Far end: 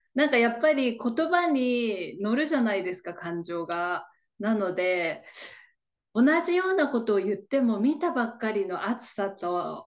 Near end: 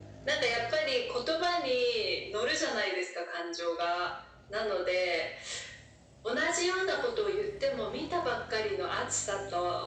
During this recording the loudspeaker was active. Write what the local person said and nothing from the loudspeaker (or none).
none